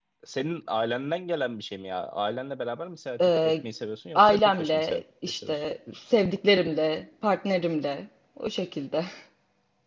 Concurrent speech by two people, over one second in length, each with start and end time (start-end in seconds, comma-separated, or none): 4.2-5.6